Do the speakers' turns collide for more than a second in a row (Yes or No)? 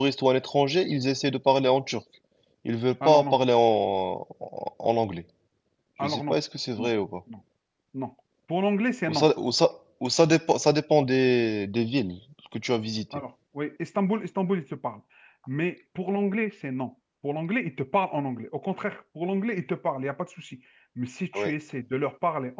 No